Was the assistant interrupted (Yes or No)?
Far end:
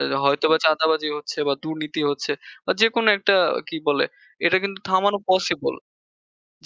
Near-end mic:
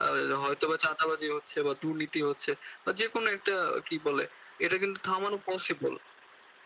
No